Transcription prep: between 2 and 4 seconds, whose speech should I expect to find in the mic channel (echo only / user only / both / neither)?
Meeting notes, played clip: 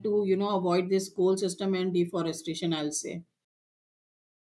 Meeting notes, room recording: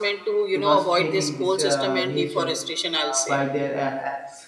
both